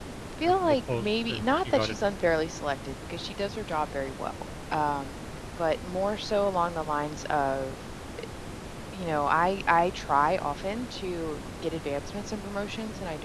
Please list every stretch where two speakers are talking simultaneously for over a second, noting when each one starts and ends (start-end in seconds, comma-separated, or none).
0.6-1.9